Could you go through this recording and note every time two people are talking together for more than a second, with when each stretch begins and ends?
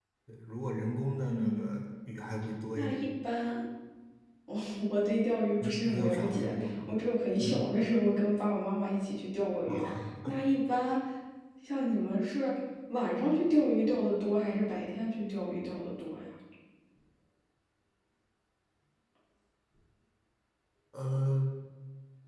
5.6-6.9

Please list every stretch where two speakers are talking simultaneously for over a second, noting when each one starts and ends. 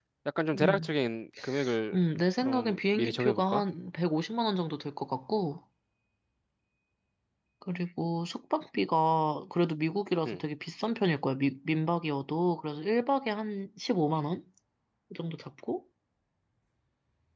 2.4-3.6

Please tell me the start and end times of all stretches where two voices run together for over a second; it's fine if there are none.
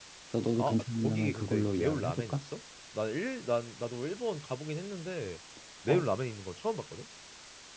0.6-2.4

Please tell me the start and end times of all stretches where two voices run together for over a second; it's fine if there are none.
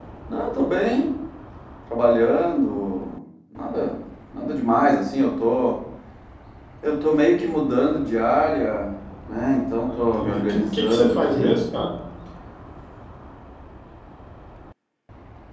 9.8-11.5

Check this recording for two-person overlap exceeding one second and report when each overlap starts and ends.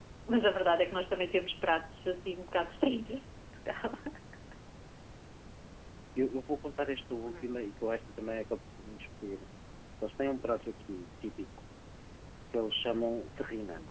none

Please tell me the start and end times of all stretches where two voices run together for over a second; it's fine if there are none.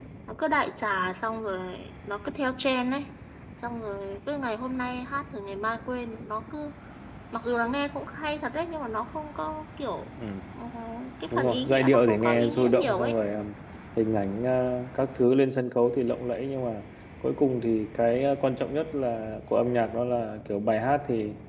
11.3-13.1

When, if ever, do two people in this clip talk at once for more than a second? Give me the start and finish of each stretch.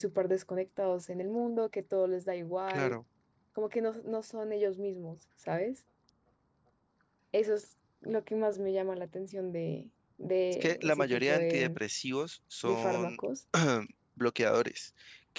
10.5-11.8

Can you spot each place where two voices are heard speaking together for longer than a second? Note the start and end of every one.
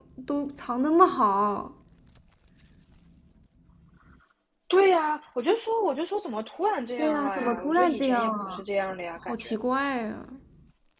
7.0-8.6

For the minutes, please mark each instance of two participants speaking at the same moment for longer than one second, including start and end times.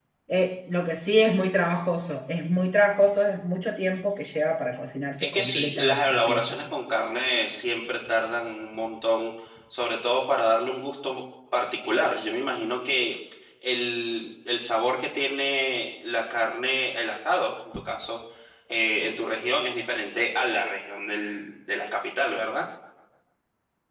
5.2-6.6

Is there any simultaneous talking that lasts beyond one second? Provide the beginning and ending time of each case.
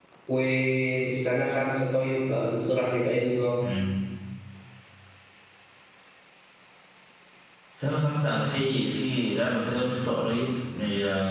none

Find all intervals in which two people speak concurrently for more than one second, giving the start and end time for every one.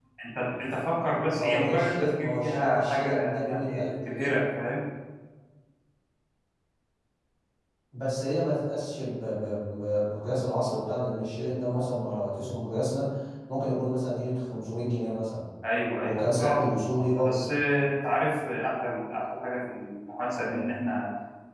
1.2-3.6, 16.0-17.4

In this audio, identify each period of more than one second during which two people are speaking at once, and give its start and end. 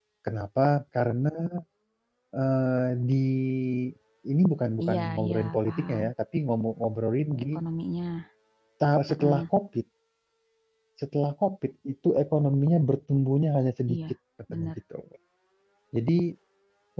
4.8-6.0

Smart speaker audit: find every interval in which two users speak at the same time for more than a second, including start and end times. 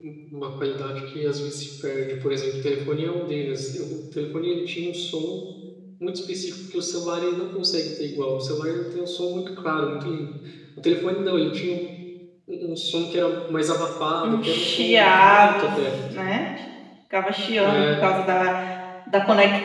14.2-15.6

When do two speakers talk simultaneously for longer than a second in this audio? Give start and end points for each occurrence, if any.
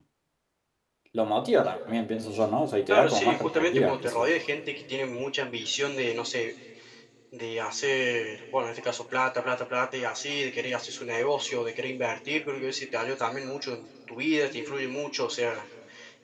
2.9-4.3

